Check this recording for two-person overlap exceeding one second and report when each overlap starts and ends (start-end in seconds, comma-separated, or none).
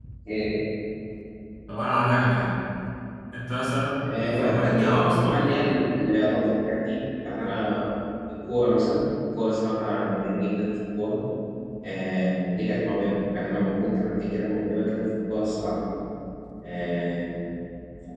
4.0-5.7